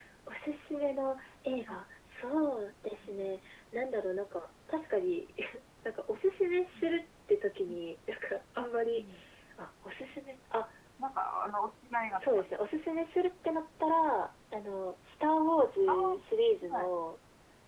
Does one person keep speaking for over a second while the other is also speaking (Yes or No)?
No